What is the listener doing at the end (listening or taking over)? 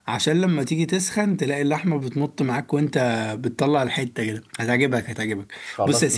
taking over